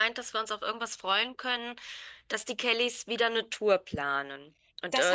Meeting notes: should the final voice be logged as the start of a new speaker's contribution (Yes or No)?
Yes